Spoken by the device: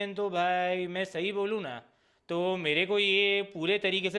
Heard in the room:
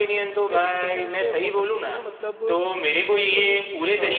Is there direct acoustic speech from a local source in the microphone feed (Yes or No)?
Yes